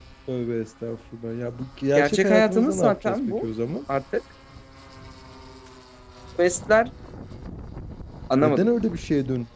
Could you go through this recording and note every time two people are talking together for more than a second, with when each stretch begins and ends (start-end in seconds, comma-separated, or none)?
1.9-3.5